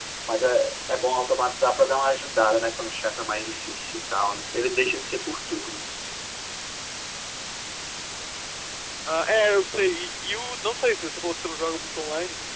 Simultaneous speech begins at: none

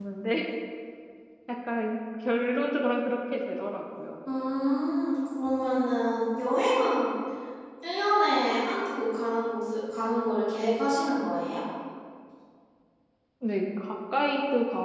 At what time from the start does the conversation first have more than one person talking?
none

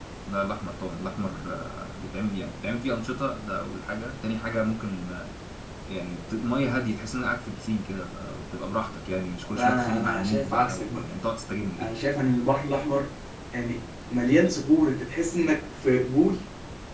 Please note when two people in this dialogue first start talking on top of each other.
9.4 s

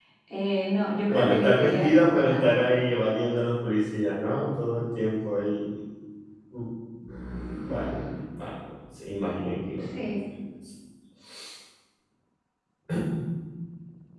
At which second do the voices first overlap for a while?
1.1 s

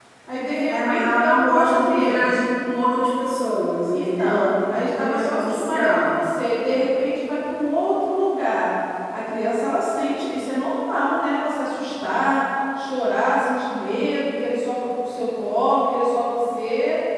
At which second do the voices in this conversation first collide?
0.7 s

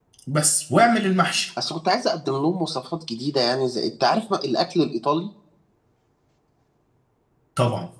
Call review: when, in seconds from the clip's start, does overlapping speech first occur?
none

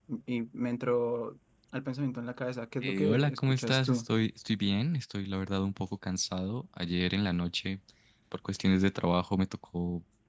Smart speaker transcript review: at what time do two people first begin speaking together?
2.8 s

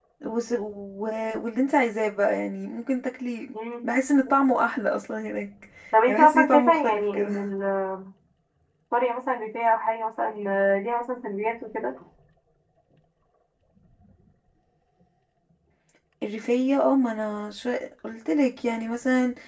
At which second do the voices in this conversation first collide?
6.1 s

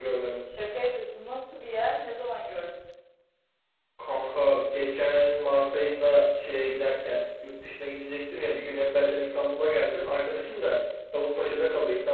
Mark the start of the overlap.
none

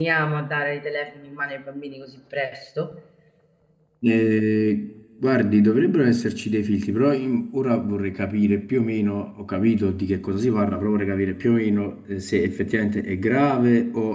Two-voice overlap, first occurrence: none

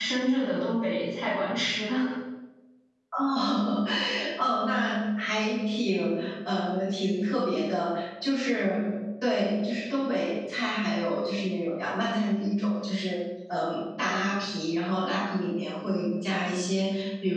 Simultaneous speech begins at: none

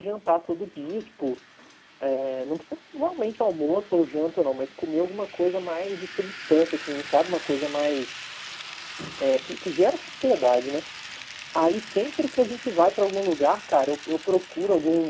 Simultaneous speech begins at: none

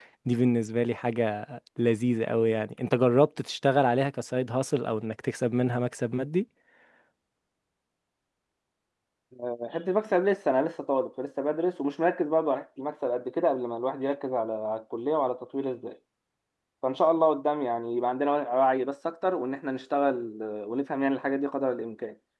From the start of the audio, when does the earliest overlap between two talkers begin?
none

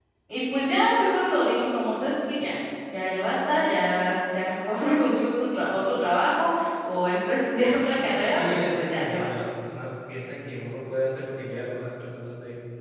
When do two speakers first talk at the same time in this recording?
7.9 s

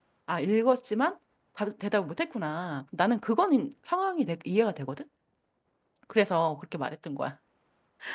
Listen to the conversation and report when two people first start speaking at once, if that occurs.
none

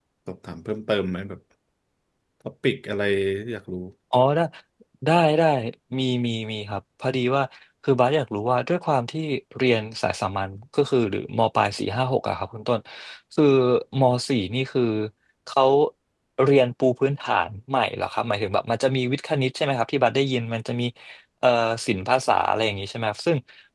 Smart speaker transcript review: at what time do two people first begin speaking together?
none

